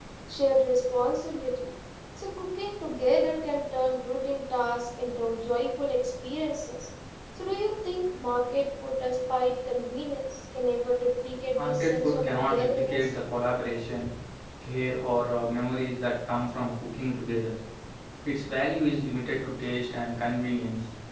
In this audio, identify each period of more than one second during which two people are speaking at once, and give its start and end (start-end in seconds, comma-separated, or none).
11.6-13.1